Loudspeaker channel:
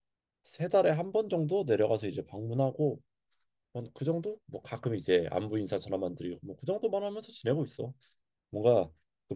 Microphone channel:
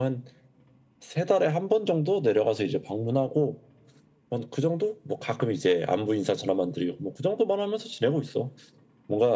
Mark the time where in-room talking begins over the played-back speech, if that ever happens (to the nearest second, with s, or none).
none